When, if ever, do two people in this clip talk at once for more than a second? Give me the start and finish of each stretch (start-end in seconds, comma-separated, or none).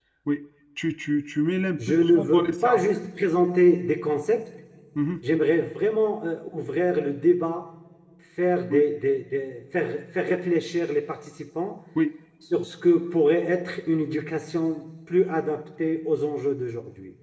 1.8-3.0